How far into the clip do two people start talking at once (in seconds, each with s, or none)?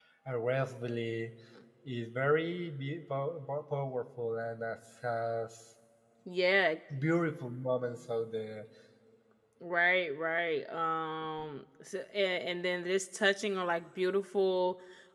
none